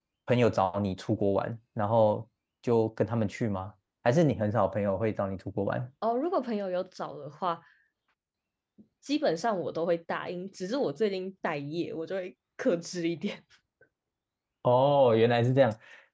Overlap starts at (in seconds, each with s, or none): none